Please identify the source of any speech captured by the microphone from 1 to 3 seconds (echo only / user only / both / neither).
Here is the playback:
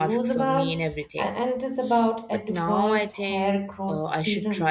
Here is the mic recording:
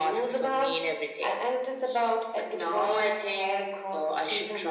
echo only